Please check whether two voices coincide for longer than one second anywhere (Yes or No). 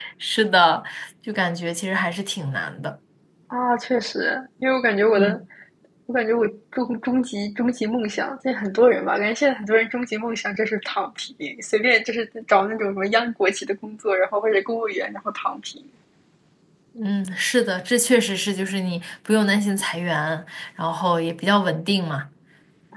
No